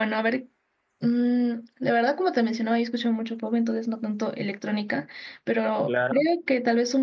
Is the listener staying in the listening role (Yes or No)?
Yes